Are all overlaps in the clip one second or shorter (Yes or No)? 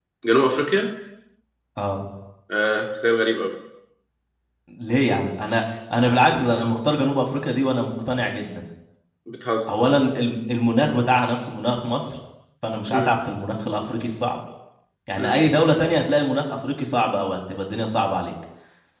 Yes